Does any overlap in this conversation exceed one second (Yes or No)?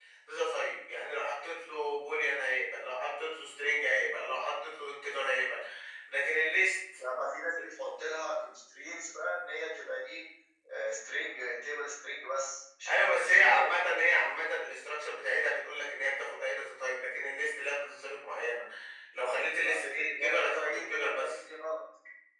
Yes